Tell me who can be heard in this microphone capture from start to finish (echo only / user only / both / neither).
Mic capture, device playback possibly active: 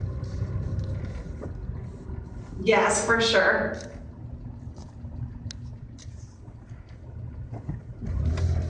user only